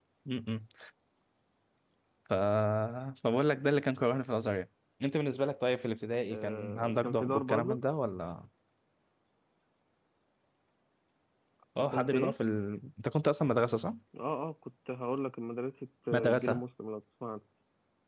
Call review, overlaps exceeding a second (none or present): present